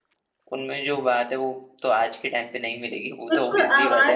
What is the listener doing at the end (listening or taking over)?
taking over